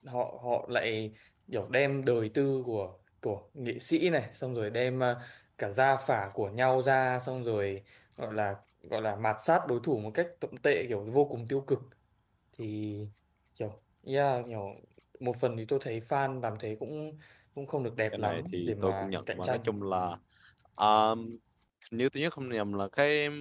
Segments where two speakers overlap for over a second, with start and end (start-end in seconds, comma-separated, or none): 18.1-19.7